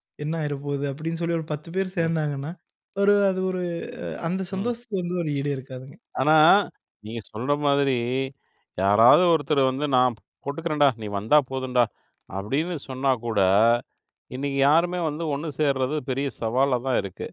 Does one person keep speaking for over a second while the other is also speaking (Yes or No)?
No